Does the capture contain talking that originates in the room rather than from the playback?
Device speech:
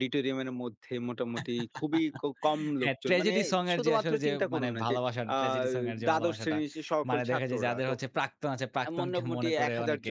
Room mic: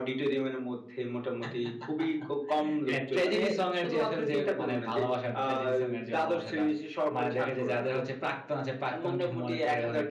No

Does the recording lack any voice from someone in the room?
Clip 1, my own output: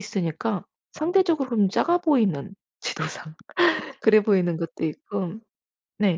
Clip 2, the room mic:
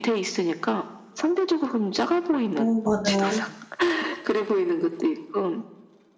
No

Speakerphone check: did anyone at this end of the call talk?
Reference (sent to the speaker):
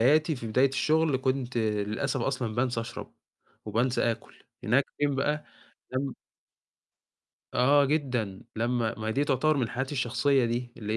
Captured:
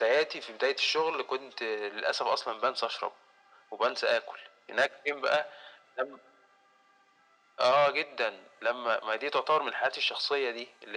No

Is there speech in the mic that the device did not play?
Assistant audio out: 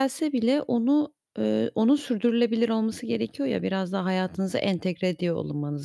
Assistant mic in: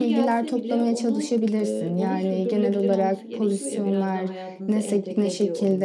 Yes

